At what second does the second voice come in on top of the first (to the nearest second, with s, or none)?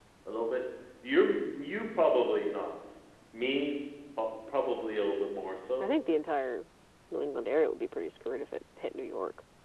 none